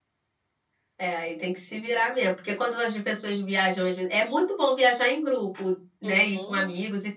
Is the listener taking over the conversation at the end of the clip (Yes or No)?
No